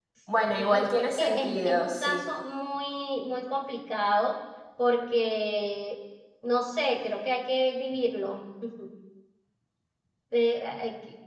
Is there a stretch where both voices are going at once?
Yes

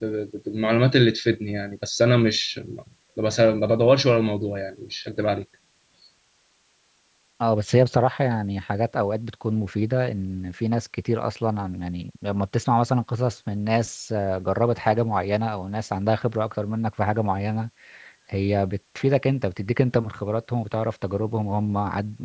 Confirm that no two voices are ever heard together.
Yes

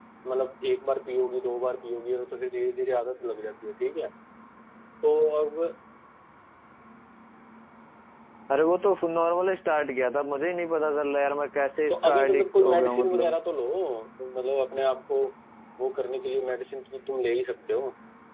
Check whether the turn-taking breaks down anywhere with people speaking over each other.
Yes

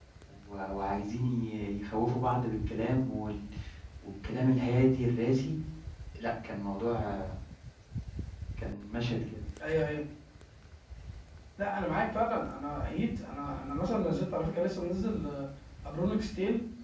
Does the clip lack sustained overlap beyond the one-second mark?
Yes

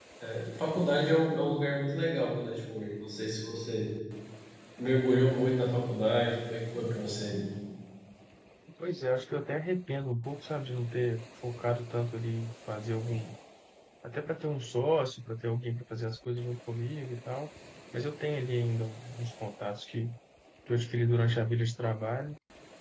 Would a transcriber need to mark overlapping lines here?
No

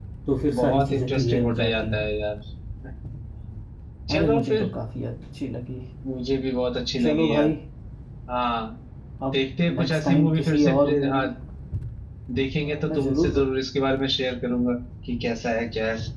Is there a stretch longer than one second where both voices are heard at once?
Yes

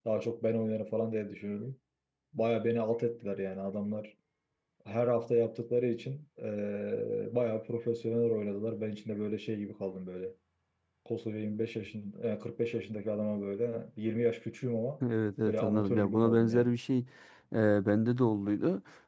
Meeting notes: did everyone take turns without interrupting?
No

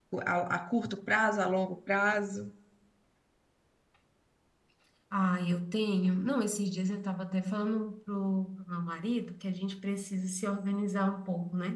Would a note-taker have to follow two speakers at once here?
No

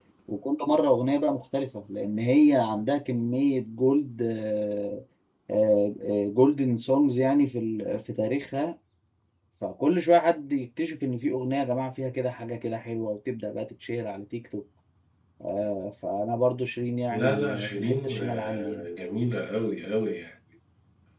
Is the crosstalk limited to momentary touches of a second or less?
No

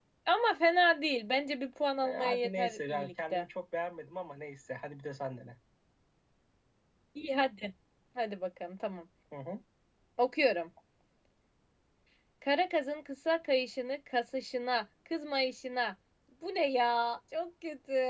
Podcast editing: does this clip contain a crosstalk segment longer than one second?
Yes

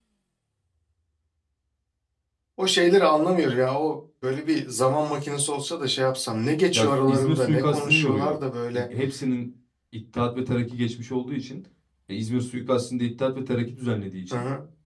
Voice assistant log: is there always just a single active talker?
No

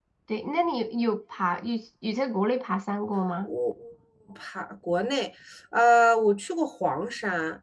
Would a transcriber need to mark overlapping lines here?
No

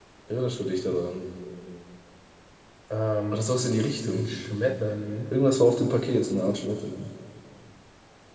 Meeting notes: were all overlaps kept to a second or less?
Yes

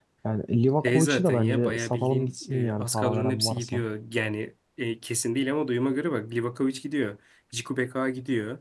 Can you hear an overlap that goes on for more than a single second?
Yes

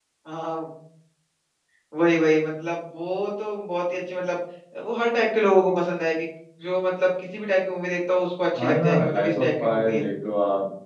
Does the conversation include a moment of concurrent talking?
Yes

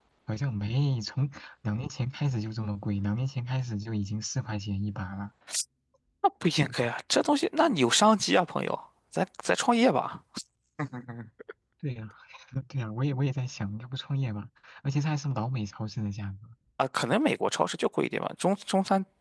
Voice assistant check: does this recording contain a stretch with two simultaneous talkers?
No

